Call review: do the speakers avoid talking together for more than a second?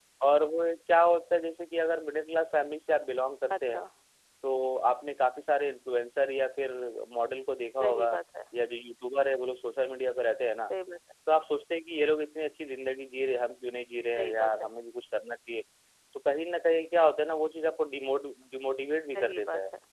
Yes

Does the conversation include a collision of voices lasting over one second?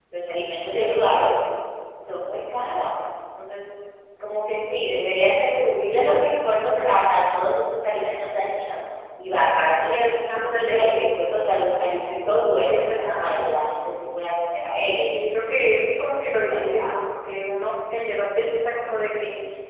Yes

